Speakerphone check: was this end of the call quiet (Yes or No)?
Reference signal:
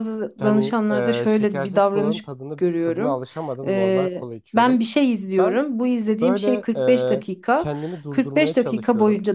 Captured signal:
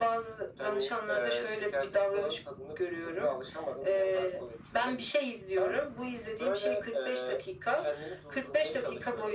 Yes